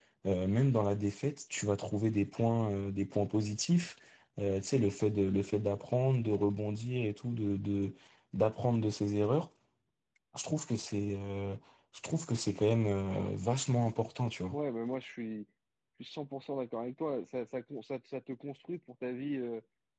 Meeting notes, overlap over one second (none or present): none